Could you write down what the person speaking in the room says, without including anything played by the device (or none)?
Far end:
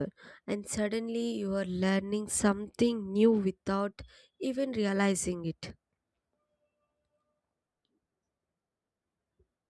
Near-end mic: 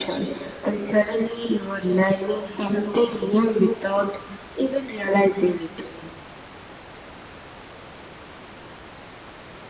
none